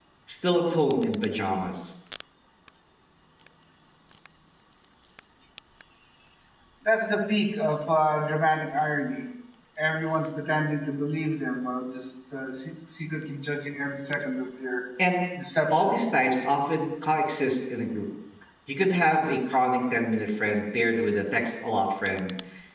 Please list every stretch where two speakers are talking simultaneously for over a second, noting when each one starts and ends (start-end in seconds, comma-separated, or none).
none